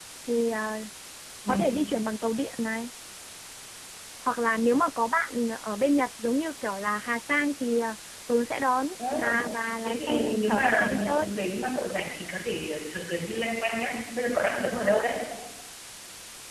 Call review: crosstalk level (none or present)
present